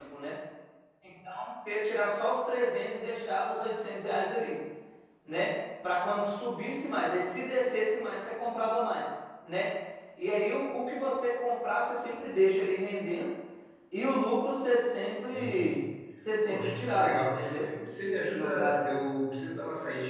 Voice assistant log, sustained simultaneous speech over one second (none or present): present